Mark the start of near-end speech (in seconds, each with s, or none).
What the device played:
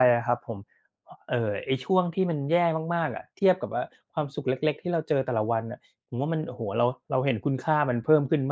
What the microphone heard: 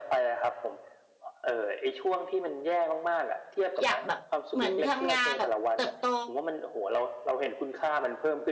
3.8 s